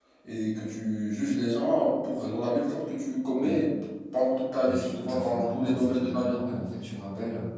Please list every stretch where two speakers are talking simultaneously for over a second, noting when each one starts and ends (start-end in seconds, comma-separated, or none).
4.6-6.4